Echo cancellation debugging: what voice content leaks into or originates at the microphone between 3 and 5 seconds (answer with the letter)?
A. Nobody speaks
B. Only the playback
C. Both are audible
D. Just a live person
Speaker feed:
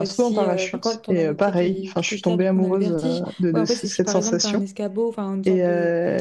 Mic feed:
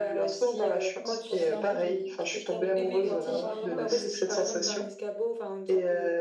C